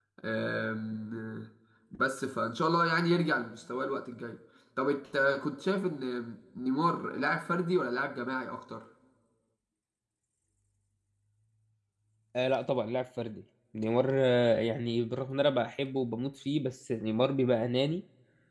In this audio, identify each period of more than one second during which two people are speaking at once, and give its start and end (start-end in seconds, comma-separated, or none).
none